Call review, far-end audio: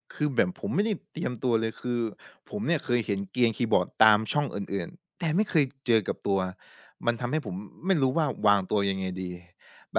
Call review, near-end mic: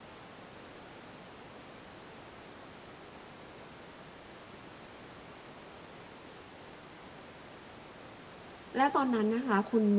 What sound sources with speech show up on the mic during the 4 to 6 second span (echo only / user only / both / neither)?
neither